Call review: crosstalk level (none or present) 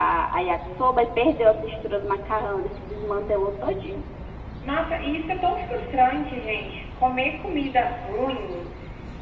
none